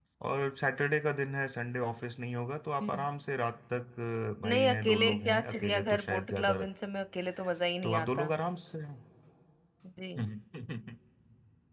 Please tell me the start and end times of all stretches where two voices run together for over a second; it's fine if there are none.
4.5-6.6

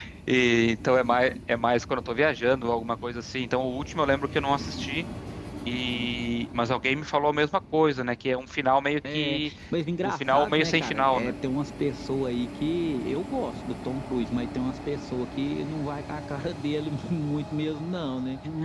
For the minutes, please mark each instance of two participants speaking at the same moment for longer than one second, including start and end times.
10.0-11.3

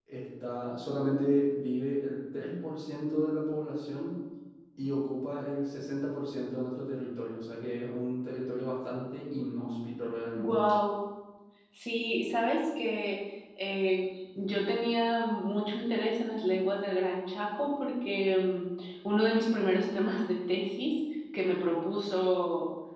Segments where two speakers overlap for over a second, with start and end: none

